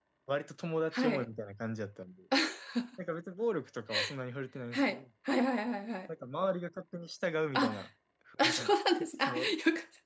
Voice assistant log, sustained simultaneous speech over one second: none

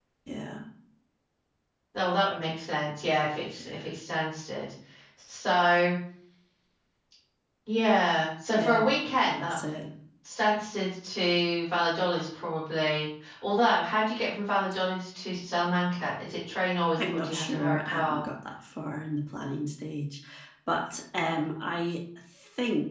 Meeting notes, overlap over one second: present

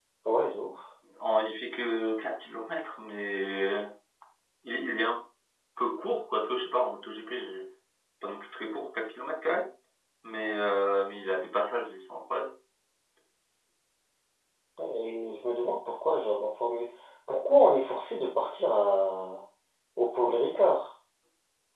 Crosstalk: none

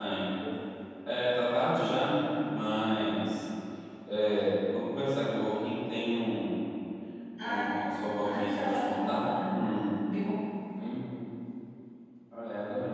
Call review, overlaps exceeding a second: present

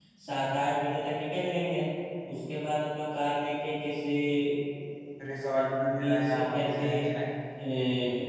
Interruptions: present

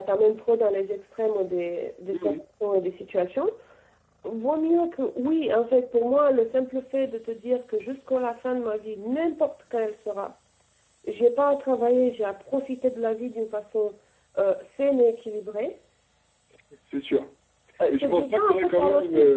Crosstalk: present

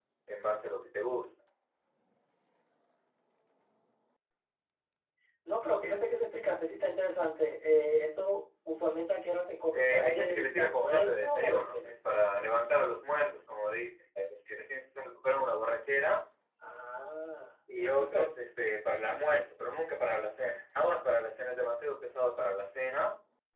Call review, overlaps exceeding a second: present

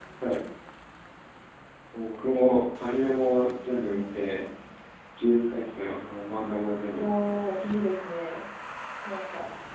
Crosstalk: present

